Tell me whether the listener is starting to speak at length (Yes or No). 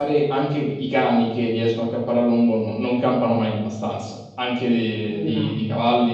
No